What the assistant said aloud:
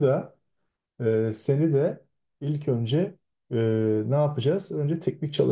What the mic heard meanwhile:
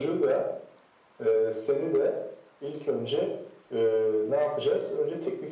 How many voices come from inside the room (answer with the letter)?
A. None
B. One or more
A